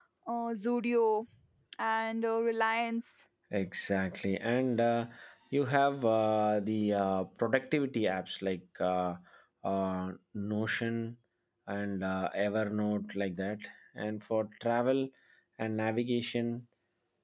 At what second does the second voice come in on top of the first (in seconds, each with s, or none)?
none